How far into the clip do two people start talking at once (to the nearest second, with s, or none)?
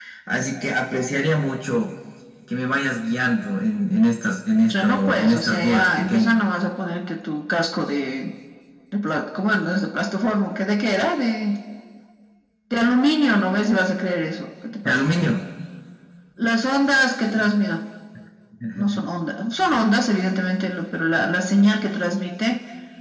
5 s